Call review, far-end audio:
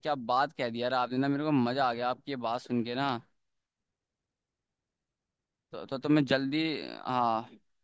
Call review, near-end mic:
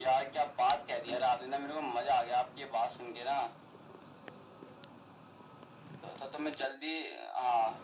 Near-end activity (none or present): none